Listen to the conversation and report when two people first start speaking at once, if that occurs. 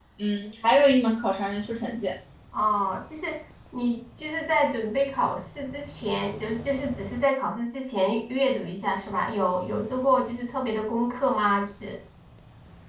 none

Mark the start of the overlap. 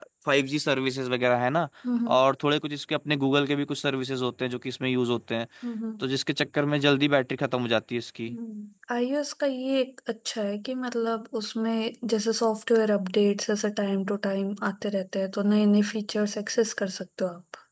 none

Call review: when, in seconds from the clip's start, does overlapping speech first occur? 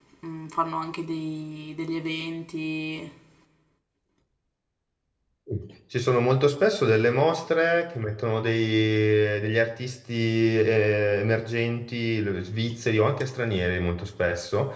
none

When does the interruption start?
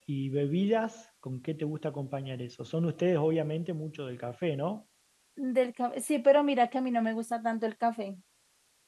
none

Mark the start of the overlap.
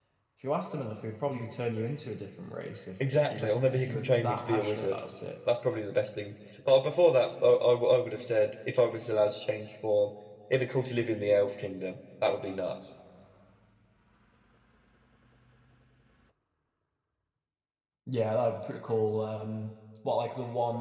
3.0 s

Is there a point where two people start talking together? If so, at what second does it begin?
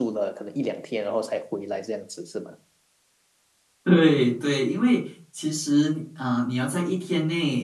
none

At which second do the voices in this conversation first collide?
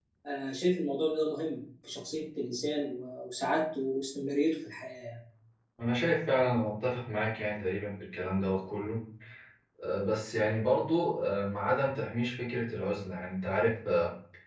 none

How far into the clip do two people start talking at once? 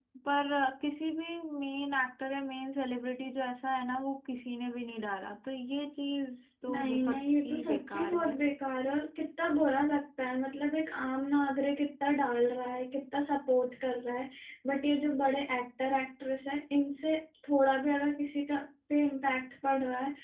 6.7 s

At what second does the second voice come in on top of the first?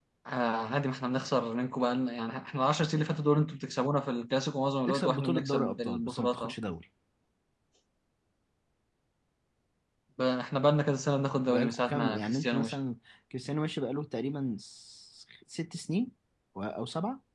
4.9 s

